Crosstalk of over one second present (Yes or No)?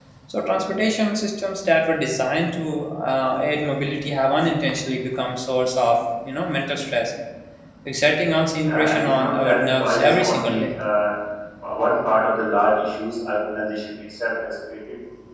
Yes